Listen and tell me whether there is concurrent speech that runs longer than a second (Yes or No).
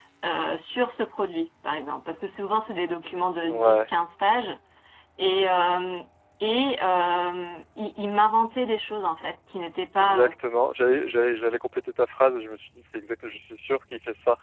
No